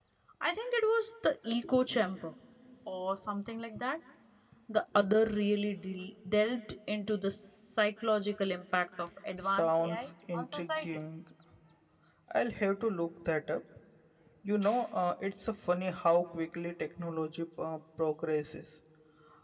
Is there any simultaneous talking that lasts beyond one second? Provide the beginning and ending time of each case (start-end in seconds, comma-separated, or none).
9.4-10.9